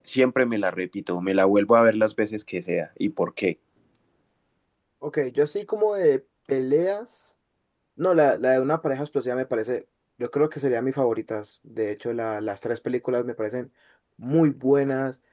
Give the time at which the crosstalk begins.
none

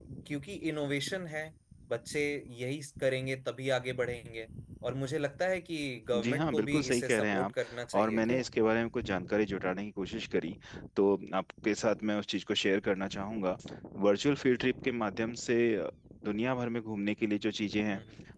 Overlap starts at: 6 s

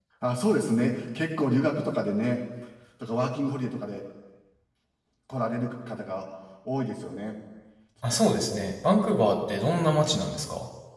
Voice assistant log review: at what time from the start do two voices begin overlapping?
none

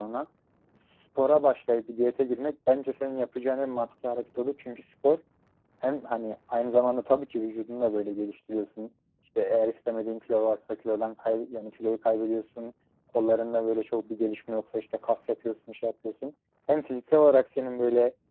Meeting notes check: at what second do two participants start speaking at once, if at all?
none

